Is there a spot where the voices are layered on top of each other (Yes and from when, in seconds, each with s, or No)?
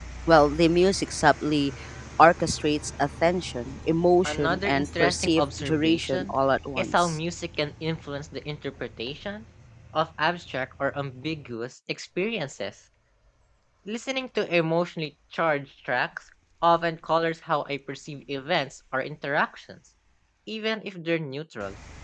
Yes, from 4.2 s